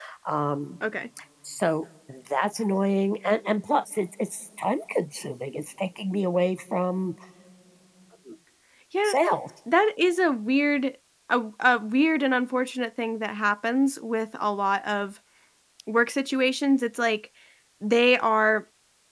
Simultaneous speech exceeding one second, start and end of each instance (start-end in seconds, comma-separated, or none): none